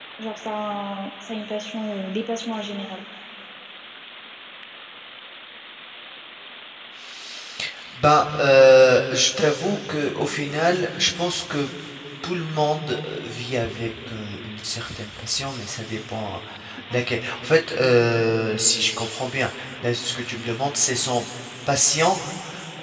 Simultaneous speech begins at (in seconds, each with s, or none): none